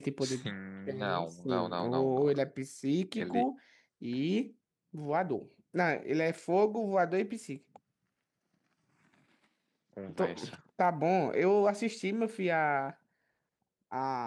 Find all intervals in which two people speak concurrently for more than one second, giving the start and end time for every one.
1.0-2.4

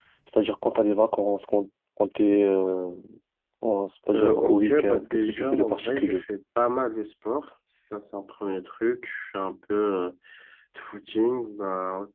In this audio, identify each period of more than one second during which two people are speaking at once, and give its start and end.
4.1-6.2

